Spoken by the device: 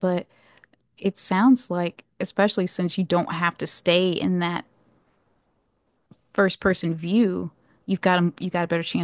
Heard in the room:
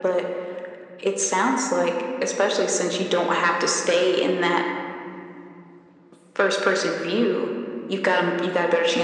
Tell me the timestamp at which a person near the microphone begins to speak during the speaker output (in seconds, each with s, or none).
none